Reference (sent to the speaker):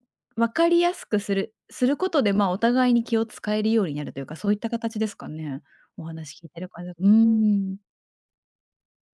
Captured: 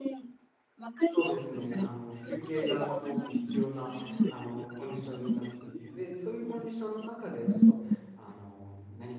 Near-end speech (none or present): present